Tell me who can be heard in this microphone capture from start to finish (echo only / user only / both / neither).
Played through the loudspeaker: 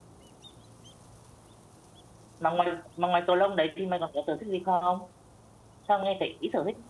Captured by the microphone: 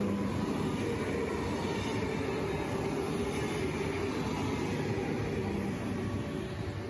neither